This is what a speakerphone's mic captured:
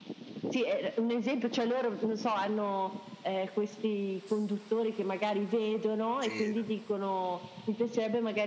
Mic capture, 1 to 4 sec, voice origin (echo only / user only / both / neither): echo only